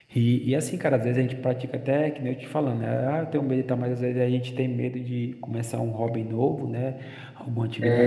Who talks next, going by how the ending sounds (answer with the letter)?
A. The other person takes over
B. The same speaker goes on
B